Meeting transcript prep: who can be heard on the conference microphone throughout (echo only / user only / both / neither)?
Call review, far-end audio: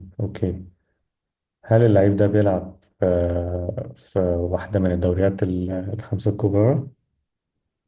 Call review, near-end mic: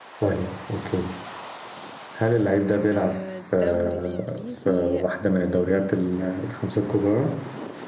both